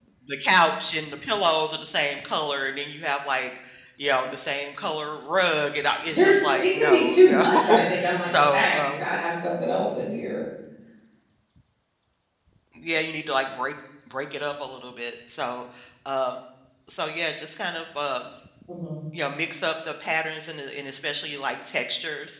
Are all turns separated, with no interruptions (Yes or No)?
No